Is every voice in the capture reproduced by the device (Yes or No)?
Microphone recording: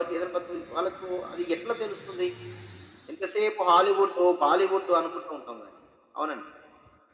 Yes